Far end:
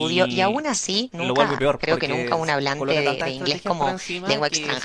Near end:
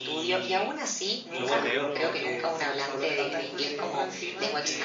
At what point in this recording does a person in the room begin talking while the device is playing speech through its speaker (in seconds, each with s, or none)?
1.3 s